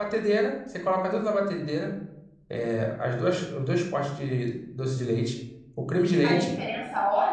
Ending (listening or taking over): taking over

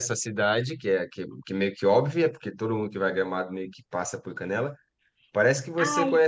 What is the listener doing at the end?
listening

